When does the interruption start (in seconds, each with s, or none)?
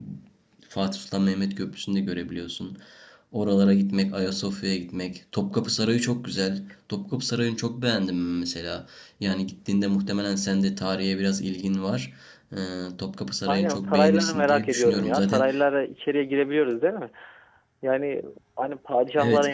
13.5 s